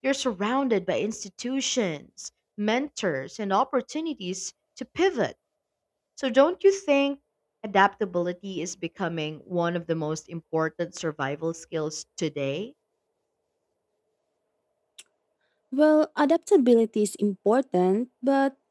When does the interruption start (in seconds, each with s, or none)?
none